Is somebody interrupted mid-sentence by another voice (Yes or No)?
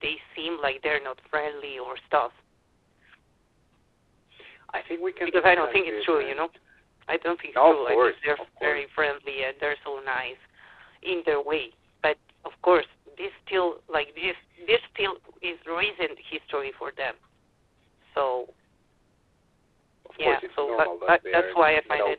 Yes